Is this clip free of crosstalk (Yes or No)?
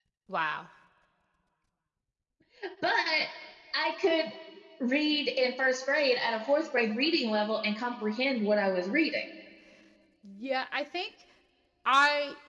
Yes